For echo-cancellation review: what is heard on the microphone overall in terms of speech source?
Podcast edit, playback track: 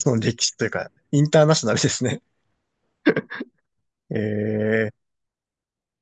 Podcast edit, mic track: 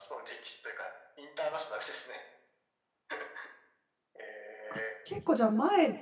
both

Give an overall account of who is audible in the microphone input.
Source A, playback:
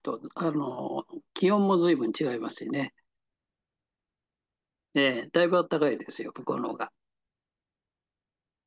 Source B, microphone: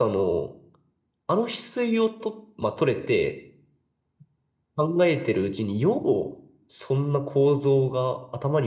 user only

